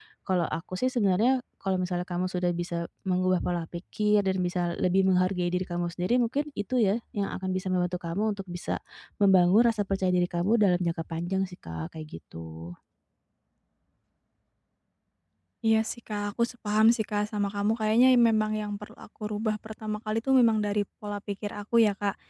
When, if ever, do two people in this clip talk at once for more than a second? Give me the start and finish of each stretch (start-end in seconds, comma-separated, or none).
none